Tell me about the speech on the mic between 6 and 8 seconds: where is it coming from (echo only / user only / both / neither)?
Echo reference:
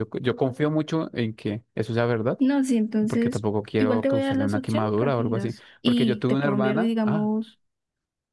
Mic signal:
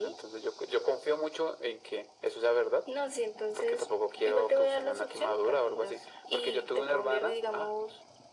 echo only